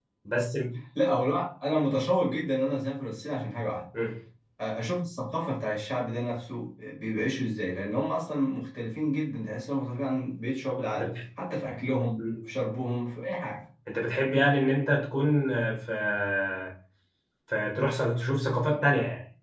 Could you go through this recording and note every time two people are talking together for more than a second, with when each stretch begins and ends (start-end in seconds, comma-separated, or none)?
none